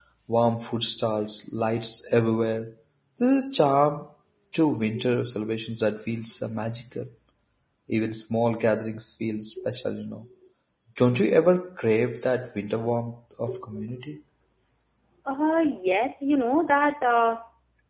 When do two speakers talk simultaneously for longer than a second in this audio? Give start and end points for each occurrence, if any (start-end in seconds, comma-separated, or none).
none